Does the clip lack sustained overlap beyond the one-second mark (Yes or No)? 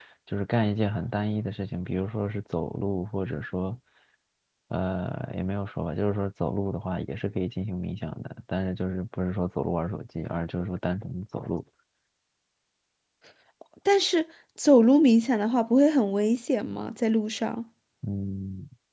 Yes